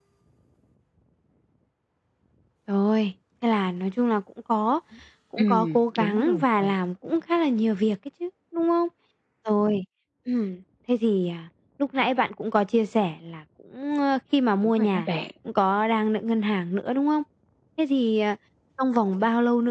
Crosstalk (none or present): present